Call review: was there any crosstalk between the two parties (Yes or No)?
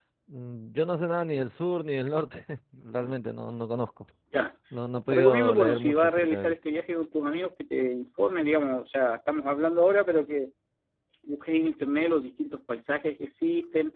Yes